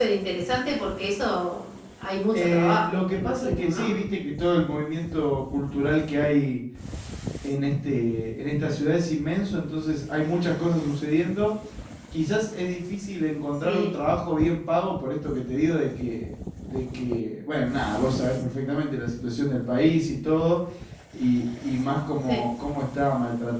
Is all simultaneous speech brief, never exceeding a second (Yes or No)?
No